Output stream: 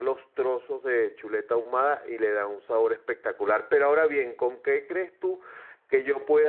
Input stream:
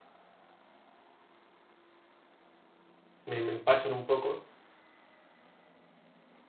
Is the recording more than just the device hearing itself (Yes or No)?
Yes